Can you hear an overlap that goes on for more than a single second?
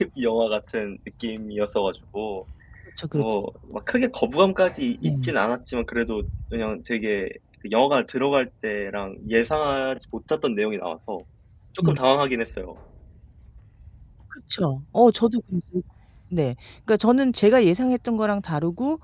No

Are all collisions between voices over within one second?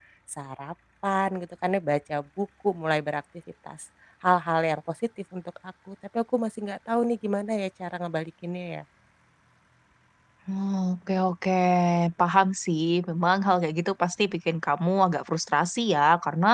Yes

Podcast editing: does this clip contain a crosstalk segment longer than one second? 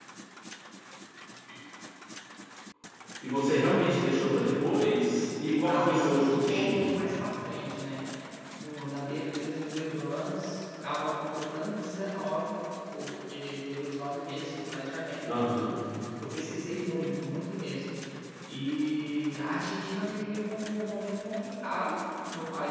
Yes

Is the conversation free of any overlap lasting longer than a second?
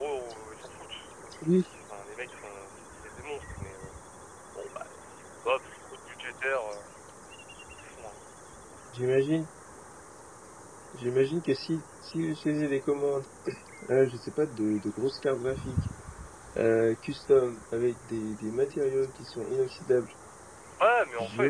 Yes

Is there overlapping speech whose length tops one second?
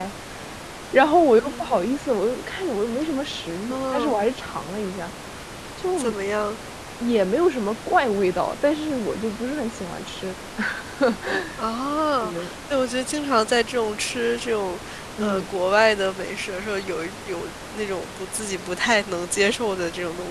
No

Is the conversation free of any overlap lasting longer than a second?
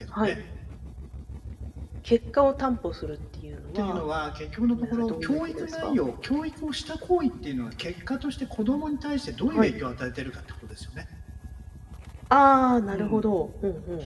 No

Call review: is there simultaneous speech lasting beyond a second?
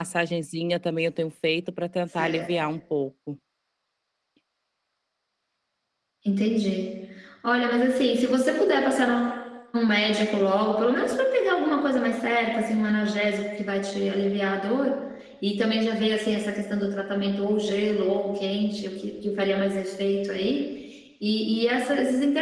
No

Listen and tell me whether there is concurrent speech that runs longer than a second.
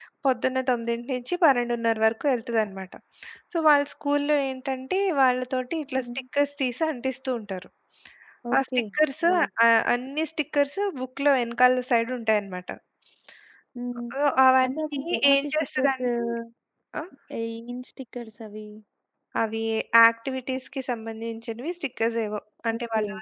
Yes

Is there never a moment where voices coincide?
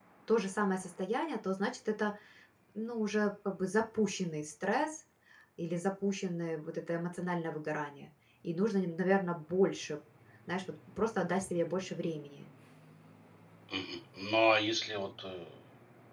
Yes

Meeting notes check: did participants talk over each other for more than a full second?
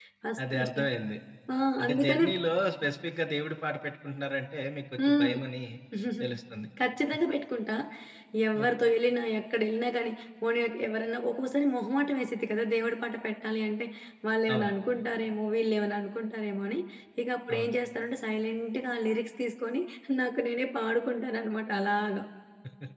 No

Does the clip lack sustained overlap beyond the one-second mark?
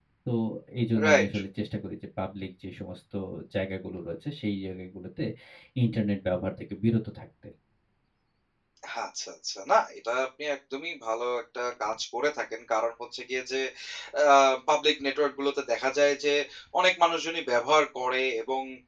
Yes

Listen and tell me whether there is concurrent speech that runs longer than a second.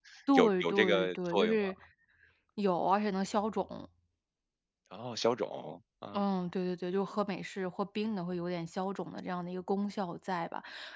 Yes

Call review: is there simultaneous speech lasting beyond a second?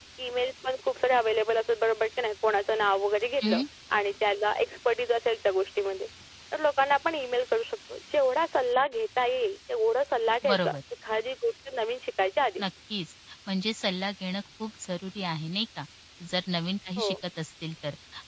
No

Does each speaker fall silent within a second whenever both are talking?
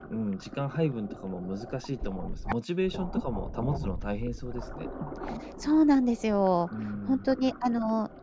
Yes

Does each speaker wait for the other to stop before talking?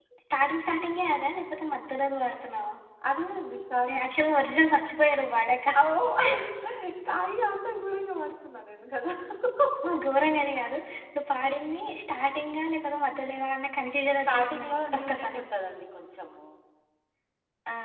No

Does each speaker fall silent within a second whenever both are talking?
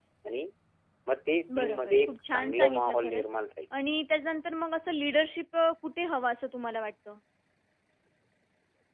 No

